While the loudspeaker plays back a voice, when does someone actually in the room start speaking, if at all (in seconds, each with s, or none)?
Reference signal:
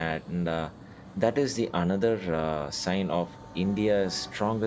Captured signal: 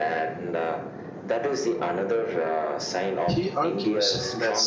3.3 s